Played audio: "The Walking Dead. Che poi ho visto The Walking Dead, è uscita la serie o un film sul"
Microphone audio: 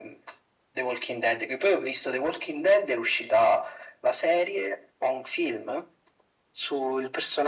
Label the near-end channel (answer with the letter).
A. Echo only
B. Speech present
A